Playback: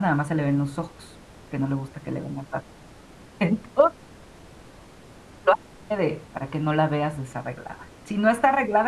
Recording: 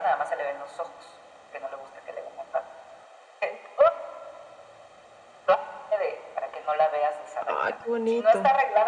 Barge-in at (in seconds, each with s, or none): 7.4 s